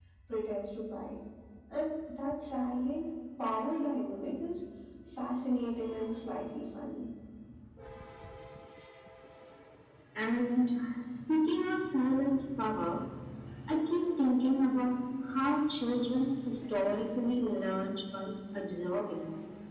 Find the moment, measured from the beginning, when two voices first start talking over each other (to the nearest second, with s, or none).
none